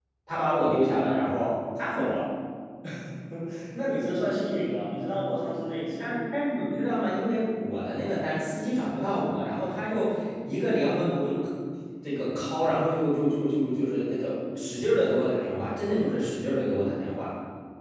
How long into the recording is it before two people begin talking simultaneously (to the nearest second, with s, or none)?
none